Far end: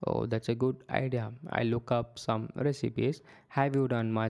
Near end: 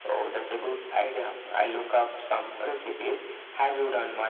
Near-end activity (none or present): none